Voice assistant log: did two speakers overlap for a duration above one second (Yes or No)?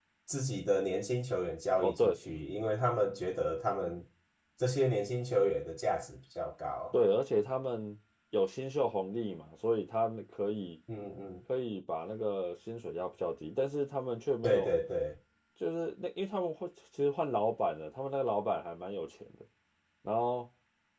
No